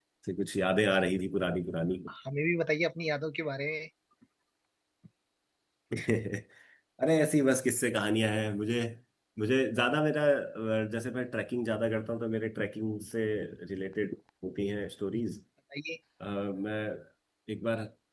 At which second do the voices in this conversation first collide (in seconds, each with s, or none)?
none